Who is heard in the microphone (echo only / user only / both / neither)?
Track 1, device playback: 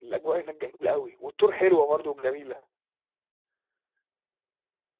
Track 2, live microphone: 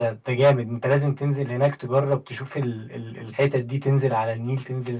user only